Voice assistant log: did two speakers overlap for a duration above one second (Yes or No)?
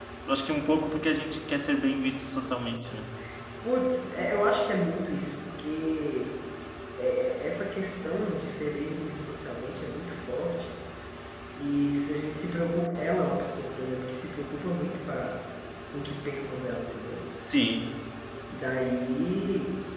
No